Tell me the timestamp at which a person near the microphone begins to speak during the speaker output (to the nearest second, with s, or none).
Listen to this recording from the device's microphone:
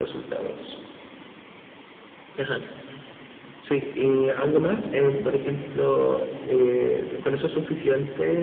none